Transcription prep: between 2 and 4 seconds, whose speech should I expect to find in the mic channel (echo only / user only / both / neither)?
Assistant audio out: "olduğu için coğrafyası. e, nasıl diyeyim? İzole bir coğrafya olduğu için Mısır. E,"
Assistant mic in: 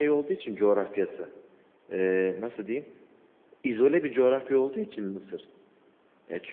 echo only